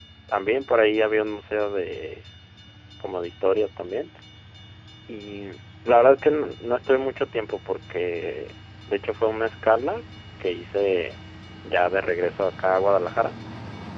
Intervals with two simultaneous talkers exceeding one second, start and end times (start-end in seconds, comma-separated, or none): none